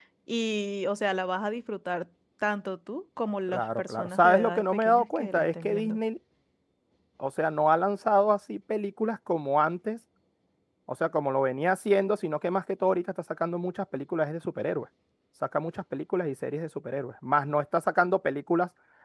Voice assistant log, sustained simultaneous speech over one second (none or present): present